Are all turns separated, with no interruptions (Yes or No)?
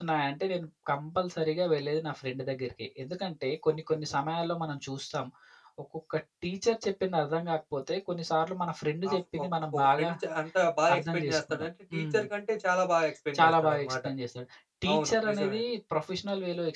No